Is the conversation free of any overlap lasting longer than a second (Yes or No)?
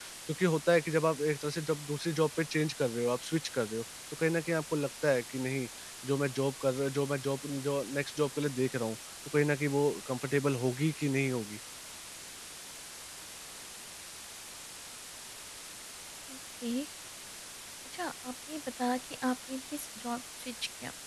Yes